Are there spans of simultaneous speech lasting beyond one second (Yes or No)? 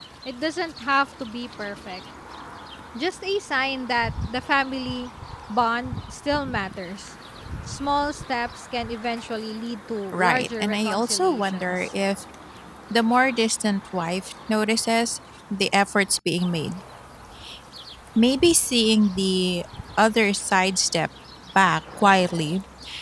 Yes